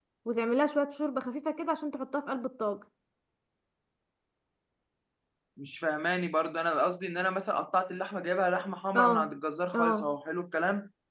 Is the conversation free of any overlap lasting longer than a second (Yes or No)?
Yes